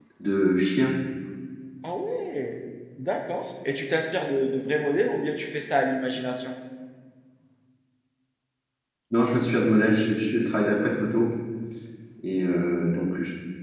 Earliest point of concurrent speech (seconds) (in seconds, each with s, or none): none